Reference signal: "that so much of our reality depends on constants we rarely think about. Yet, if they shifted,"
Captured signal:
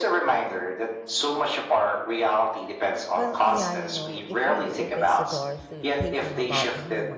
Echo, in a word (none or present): present